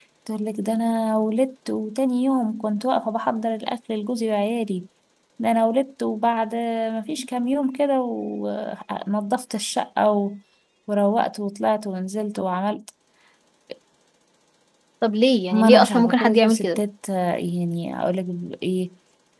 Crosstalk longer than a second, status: present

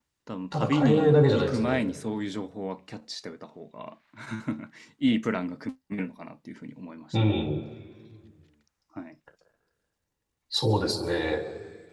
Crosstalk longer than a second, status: present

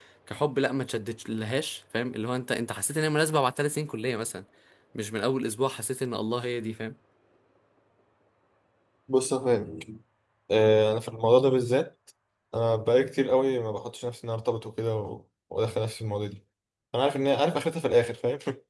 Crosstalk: none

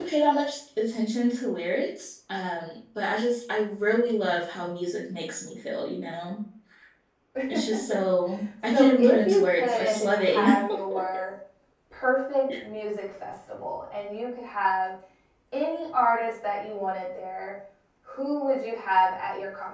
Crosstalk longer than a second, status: present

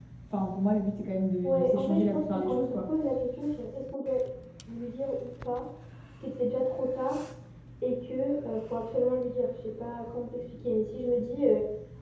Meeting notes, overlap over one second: present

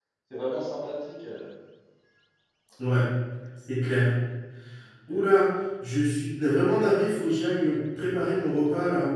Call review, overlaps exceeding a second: none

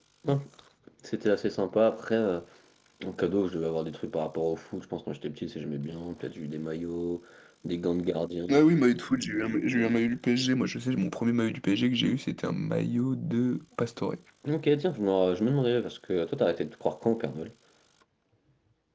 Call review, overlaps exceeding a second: none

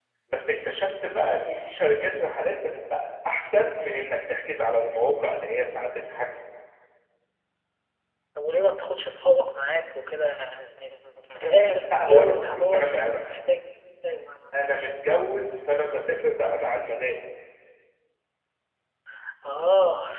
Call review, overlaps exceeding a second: present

